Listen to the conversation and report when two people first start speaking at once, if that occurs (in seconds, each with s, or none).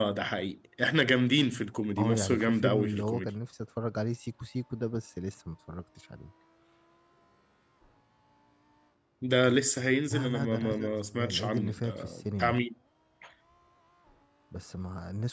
2.0 s